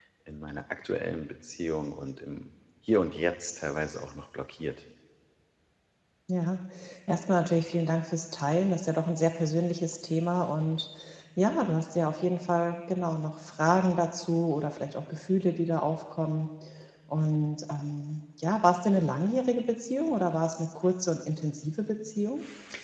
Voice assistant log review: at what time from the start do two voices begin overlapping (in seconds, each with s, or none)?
none